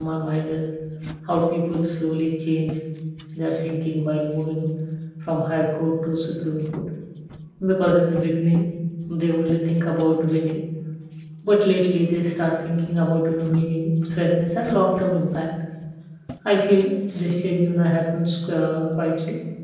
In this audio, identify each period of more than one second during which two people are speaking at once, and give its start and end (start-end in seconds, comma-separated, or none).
none